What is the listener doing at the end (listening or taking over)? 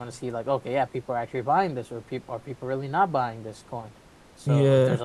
listening